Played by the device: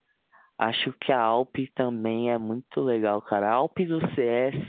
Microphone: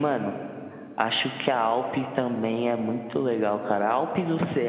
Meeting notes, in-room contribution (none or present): none